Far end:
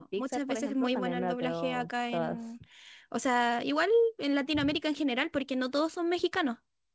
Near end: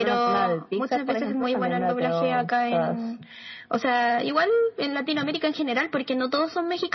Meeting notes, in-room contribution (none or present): none